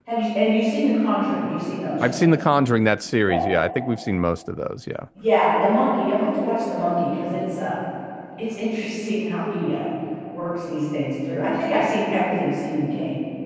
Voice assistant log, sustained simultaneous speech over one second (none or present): none